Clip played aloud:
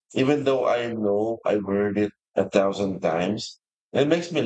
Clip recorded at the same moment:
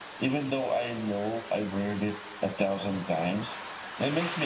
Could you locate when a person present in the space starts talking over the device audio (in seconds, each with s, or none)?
none